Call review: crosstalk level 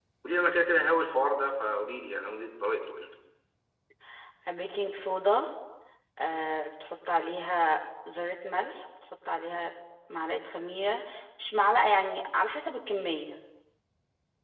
none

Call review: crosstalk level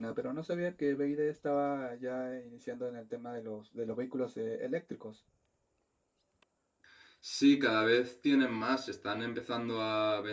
none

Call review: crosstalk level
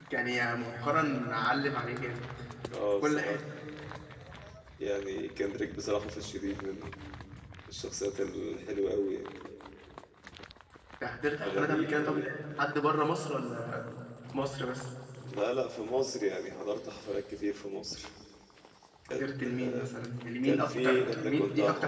present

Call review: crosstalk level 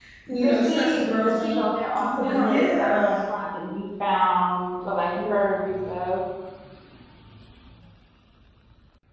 present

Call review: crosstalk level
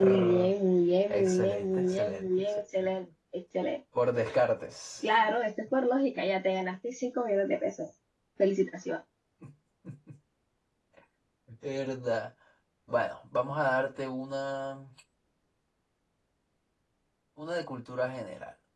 present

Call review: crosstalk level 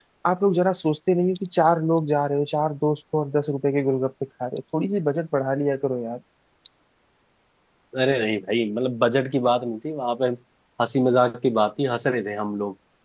none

